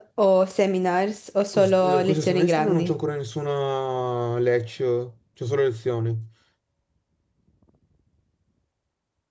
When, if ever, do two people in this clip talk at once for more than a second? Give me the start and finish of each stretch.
1.5-2.8

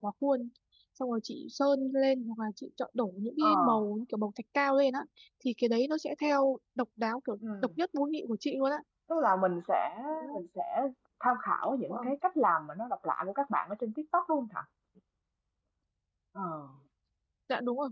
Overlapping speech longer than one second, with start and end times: none

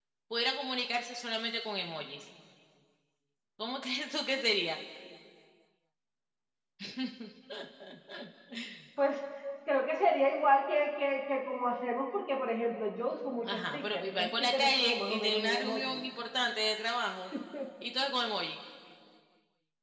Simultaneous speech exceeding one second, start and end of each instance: 13.4-16.0

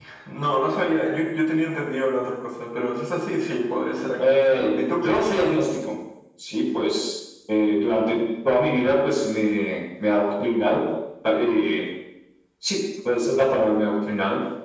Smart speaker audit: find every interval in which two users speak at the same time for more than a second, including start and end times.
4.2-5.5

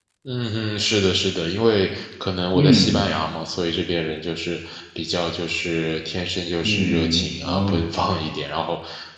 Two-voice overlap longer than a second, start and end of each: 6.6-7.8

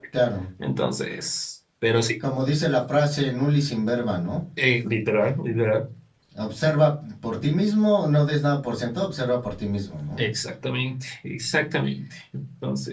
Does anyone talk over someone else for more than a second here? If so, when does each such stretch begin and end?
none

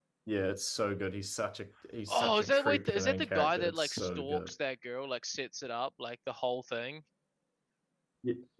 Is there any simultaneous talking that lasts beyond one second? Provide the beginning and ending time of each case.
2.1-4.5

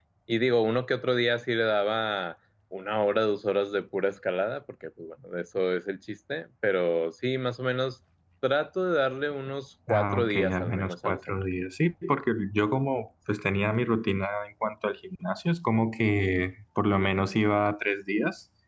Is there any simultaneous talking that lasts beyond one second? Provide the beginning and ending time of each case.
9.9-11.4

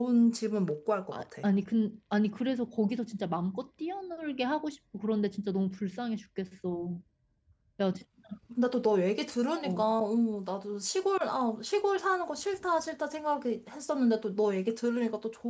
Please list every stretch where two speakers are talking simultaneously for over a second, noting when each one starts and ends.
none

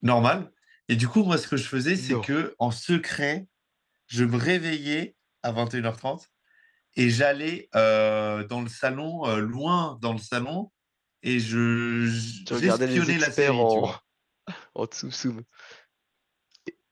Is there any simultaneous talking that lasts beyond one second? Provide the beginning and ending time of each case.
12.5-13.9

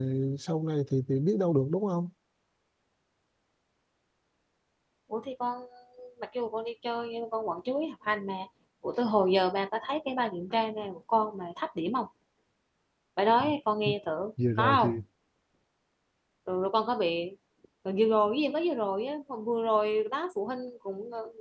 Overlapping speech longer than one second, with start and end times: none

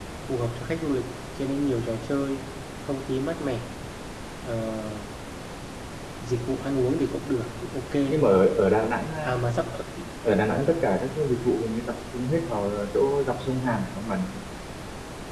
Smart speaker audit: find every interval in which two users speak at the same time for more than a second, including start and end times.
none

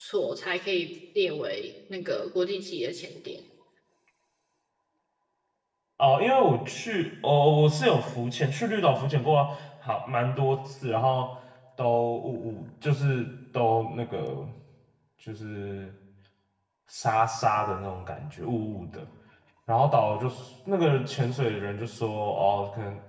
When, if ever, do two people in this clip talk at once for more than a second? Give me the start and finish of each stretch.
none

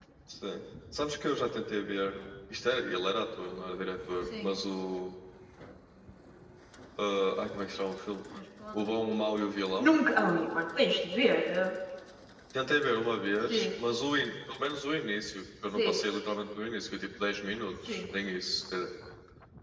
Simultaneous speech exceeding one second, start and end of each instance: none

